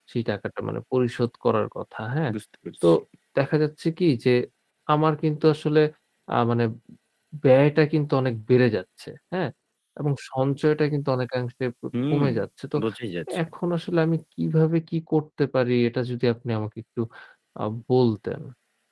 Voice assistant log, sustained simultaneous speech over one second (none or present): none